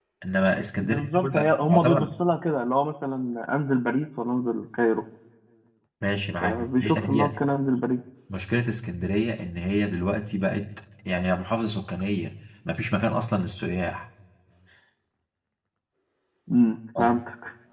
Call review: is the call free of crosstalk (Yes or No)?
No